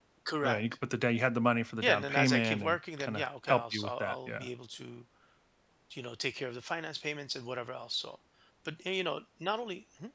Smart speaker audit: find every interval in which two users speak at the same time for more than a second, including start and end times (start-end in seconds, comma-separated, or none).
1.8-4.5